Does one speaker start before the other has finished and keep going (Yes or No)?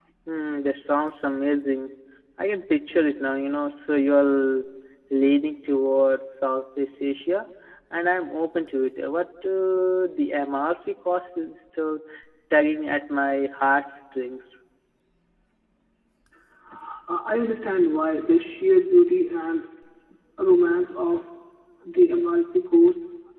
No